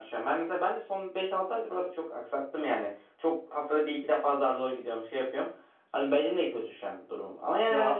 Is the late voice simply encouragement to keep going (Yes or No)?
Yes